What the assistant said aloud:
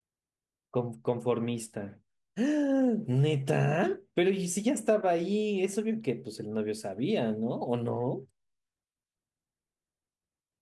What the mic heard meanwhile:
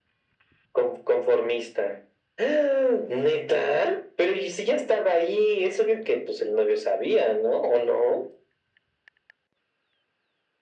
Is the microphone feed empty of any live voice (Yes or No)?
Yes